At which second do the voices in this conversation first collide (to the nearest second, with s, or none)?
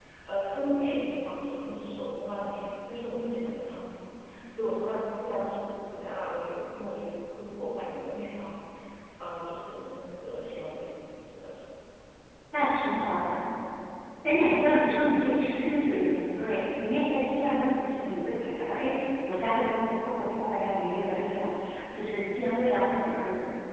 none